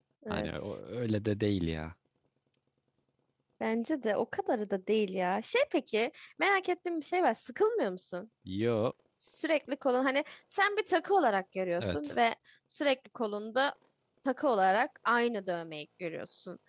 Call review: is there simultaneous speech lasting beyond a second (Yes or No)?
No